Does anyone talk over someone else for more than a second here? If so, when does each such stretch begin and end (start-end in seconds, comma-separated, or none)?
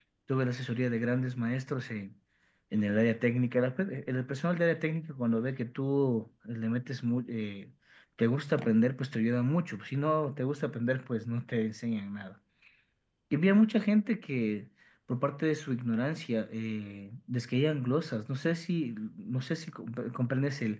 none